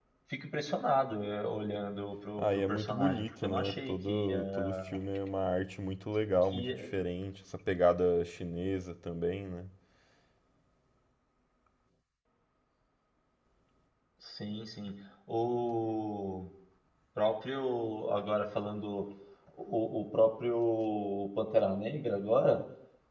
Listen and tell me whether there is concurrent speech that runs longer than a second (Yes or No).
Yes